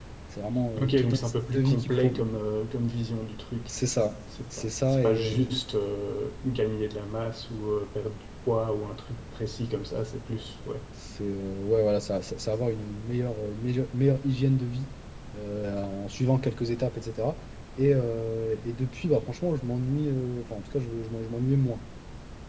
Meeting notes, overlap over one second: present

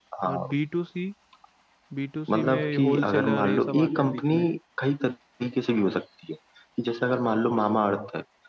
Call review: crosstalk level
present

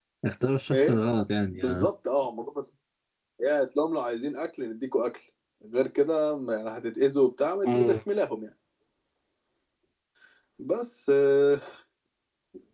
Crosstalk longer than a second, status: none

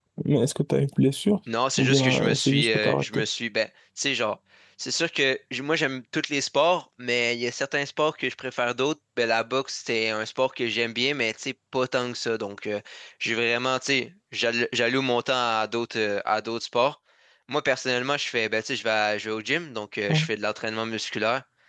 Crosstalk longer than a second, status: present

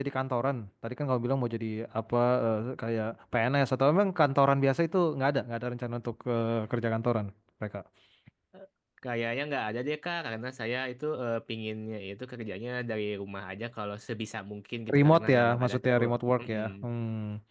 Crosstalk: present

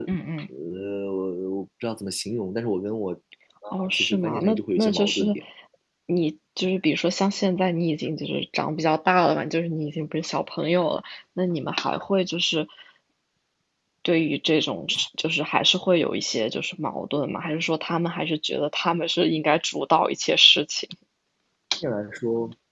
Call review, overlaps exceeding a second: present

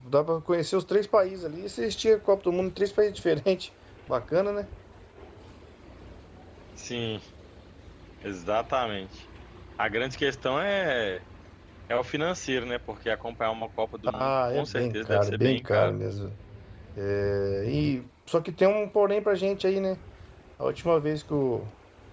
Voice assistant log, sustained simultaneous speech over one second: present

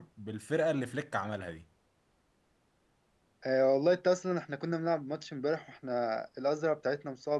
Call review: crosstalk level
none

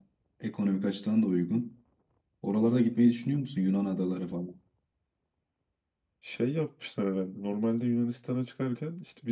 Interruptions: none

